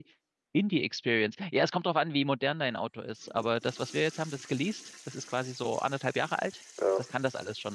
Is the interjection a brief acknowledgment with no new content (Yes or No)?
Yes